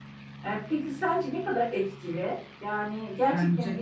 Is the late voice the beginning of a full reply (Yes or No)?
No